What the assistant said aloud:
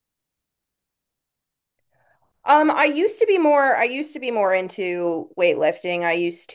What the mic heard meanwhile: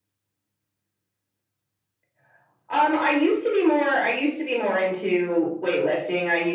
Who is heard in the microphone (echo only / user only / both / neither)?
echo only